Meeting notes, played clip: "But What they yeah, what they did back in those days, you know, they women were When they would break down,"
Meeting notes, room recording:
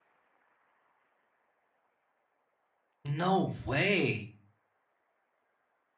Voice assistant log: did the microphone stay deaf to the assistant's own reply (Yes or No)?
Yes